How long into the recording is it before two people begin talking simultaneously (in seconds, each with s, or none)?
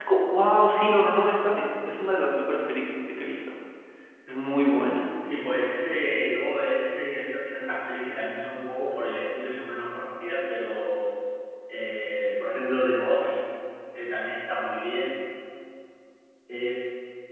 none